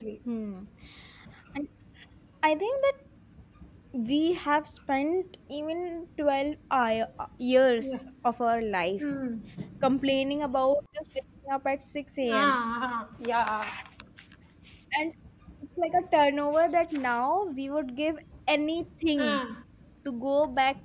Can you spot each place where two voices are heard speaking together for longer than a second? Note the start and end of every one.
none

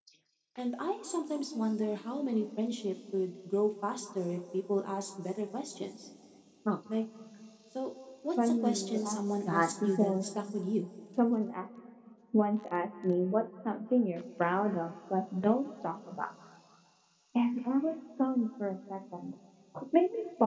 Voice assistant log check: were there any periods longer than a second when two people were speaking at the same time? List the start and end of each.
8.4-10.1

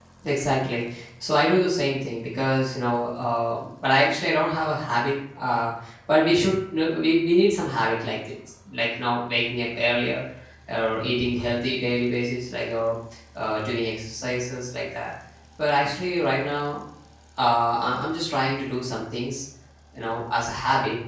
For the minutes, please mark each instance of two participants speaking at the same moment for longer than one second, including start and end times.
none

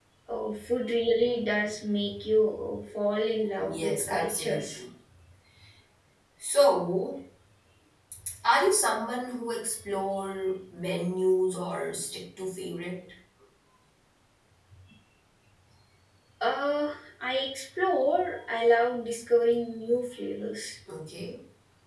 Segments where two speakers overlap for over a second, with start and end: 3.6-4.8

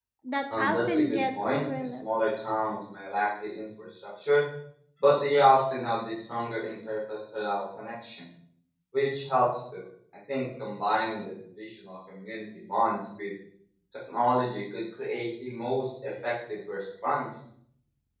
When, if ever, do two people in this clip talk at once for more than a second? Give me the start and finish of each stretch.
0.5-2.0

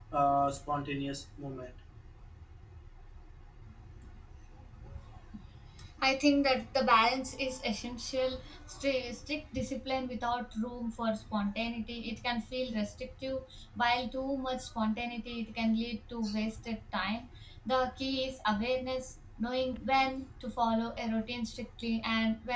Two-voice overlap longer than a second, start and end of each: none

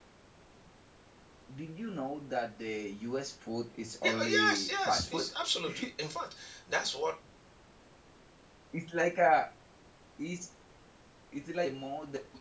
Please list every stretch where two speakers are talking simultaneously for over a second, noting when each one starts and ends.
4.0-5.3

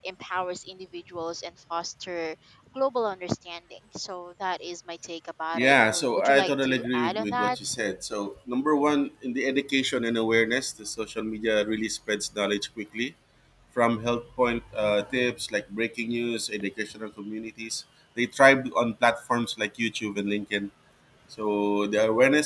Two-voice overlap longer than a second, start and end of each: 5.5-7.6

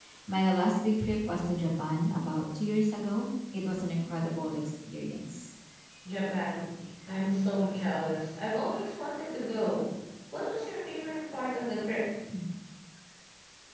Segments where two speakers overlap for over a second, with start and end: none

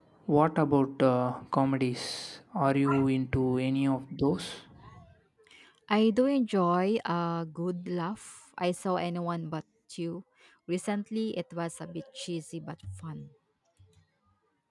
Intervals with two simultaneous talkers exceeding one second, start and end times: none

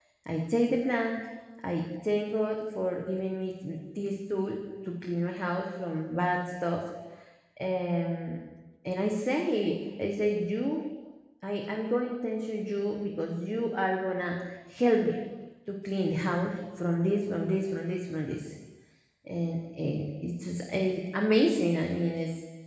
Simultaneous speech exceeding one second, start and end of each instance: none

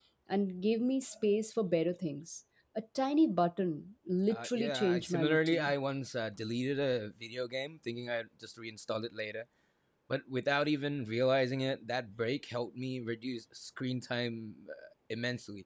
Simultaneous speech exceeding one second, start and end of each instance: 4.3-5.7

